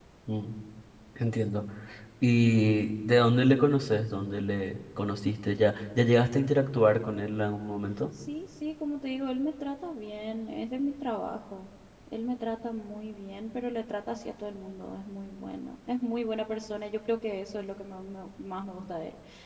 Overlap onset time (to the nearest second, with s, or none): none